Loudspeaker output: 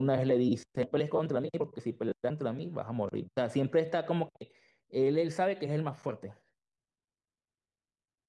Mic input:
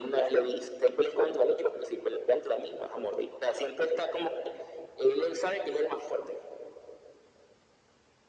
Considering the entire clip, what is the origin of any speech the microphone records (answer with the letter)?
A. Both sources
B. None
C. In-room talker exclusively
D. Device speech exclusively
D